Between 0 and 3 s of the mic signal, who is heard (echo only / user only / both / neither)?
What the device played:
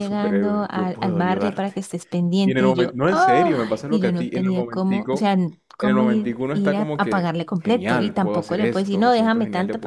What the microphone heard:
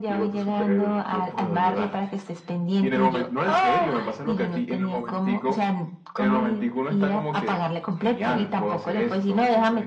echo only